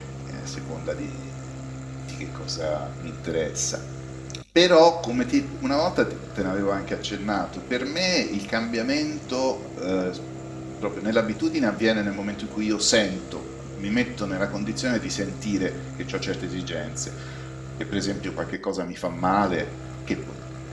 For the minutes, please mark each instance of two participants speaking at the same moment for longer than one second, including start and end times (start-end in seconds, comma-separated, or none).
none